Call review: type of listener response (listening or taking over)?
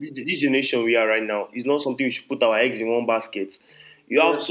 listening